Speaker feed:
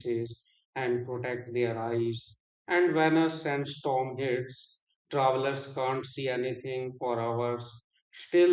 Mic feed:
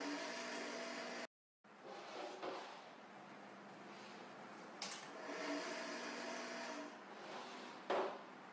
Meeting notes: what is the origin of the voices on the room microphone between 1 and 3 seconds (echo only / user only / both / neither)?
neither